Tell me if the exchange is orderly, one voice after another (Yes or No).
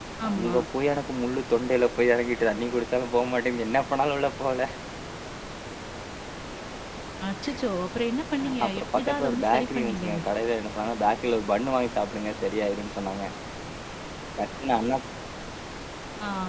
No